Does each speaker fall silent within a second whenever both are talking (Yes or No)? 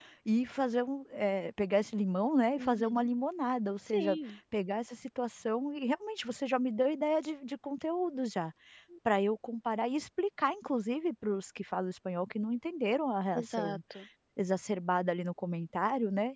Yes